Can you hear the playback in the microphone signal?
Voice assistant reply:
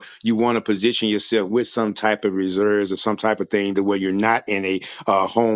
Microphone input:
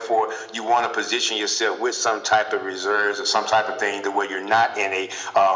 Yes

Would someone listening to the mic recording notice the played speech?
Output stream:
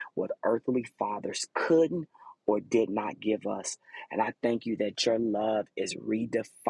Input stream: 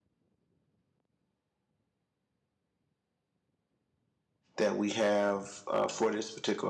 No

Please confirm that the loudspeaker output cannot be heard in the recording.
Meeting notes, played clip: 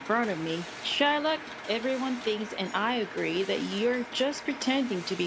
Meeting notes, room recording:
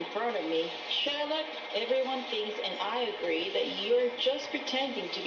No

